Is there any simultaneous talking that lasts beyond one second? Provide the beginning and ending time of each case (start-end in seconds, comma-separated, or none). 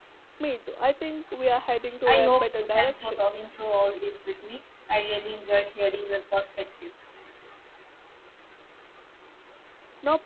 2.0-3.2